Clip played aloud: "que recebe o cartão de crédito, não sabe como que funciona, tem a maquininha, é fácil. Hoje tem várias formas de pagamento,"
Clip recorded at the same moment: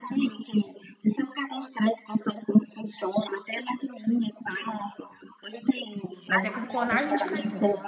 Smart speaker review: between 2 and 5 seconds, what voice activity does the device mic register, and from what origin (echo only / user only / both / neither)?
echo only